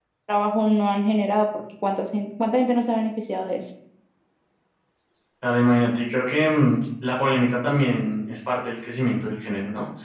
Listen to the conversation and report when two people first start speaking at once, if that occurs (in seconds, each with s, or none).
none